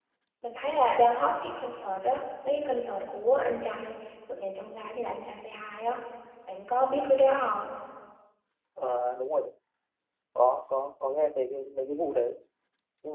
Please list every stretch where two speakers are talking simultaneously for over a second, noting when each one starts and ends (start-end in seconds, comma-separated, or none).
none